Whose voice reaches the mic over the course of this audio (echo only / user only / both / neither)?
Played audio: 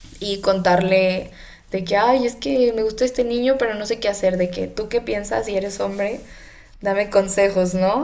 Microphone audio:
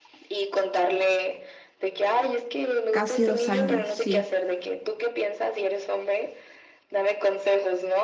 both